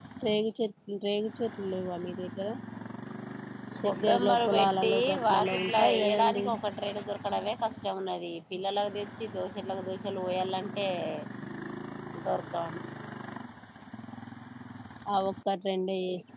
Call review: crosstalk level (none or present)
present